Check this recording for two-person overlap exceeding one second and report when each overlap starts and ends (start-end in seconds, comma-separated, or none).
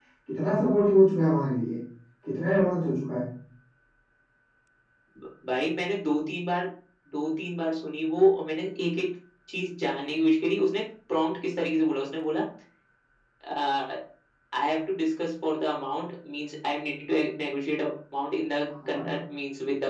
none